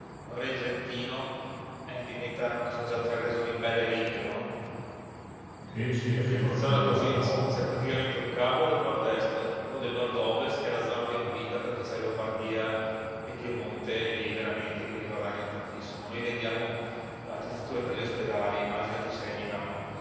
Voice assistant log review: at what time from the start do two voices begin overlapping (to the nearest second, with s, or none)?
6 s